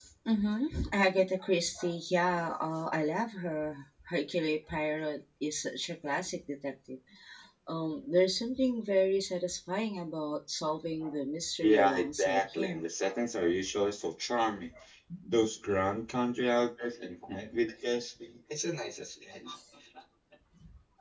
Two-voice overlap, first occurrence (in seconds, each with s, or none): 11.6 s